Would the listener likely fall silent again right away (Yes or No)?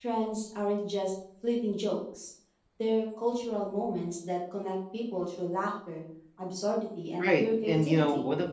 No